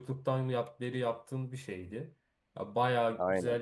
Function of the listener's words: listening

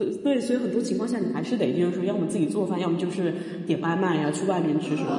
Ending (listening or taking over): listening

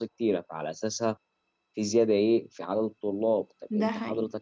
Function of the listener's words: listening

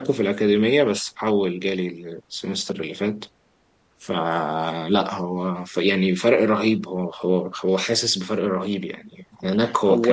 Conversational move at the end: listening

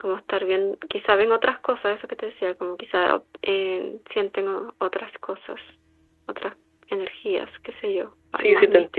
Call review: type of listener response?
taking over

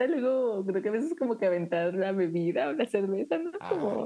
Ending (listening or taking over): listening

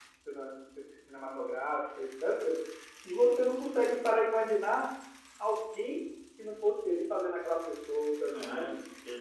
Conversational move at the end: taking over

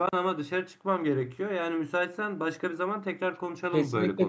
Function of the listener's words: taking over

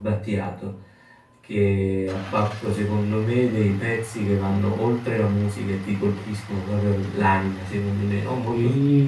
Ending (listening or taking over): taking over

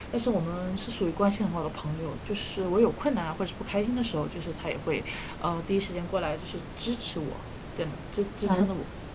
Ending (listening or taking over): taking over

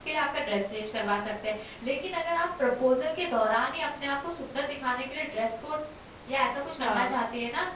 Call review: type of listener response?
listening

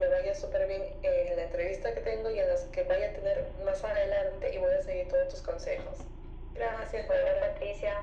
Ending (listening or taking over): taking over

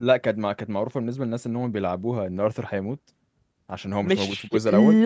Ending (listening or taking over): taking over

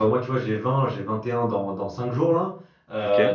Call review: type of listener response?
listening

